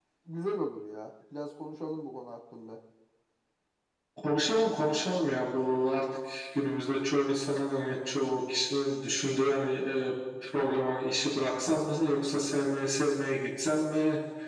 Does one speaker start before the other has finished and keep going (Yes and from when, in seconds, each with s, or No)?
No